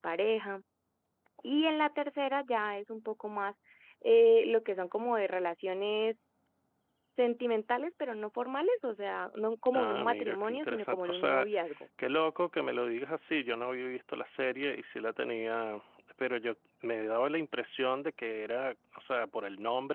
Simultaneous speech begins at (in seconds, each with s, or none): 9.7 s